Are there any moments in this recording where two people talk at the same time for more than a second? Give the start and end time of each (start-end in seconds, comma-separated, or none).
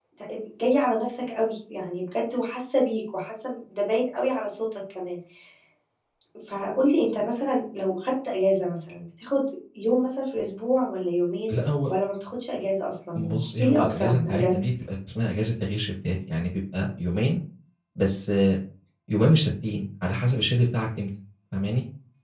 13.2-14.6